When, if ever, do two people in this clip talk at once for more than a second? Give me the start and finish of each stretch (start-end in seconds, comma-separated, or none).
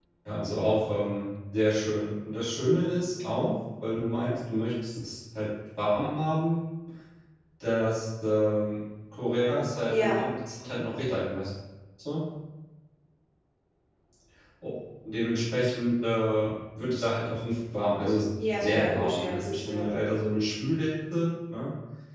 18.6-19.9